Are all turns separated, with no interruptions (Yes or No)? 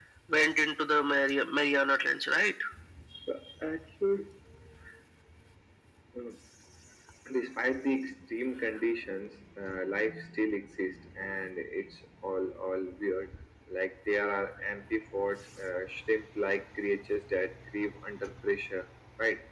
Yes